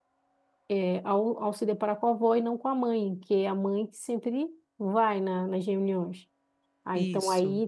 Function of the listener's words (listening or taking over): listening